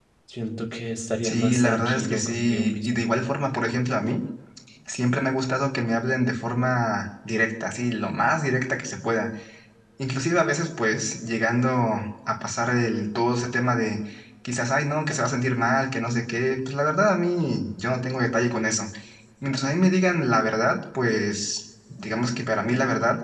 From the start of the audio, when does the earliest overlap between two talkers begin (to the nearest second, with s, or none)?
1 s